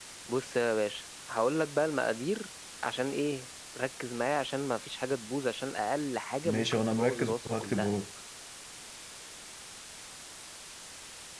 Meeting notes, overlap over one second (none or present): present